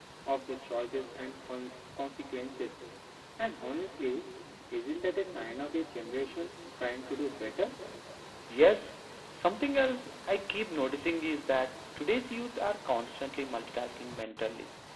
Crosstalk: none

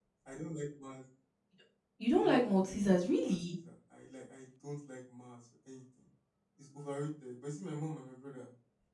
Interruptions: present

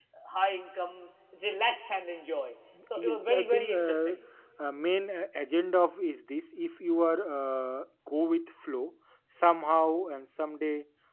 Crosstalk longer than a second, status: present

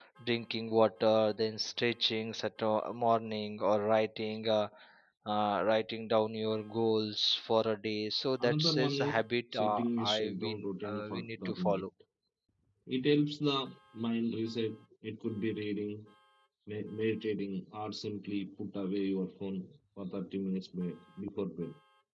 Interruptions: present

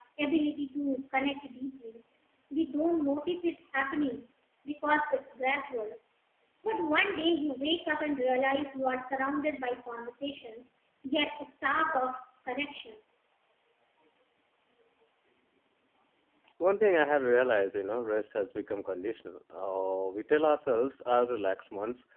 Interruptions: none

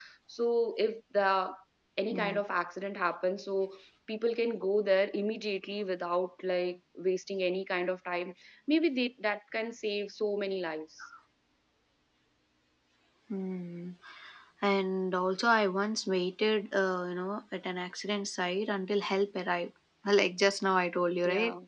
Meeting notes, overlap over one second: none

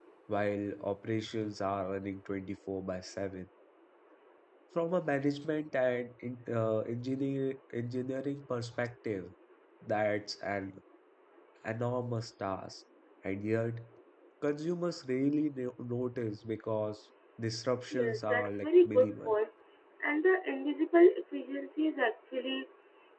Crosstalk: present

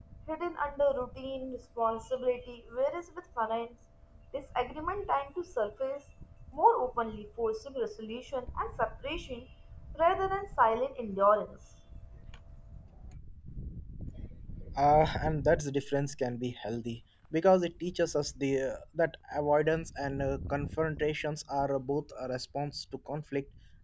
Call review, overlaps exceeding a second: none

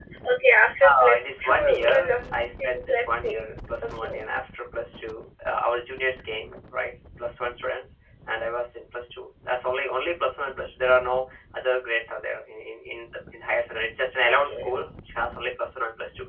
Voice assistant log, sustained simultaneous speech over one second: present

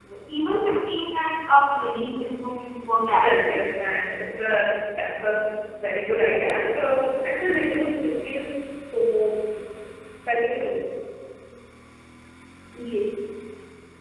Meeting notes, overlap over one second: none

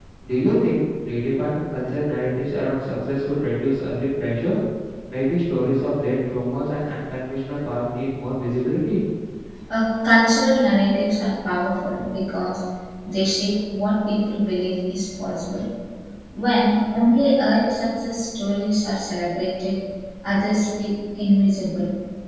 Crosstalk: none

